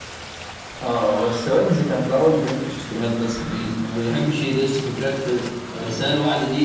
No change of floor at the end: Yes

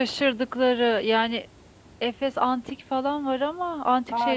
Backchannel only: No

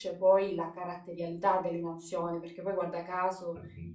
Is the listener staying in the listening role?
Yes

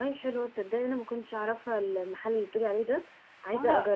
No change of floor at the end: No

